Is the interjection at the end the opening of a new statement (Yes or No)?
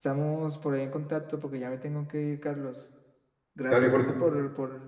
No